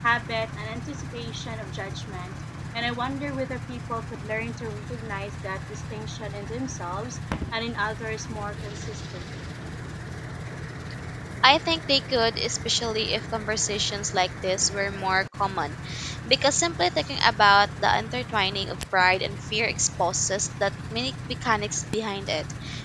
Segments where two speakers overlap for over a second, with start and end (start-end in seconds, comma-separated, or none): none